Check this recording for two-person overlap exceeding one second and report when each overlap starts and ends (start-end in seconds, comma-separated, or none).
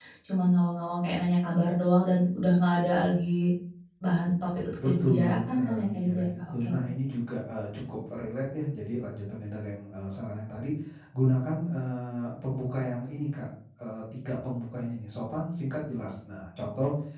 4.8-6.8